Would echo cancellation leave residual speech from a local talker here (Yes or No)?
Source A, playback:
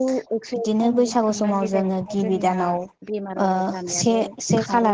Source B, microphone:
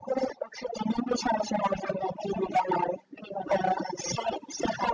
No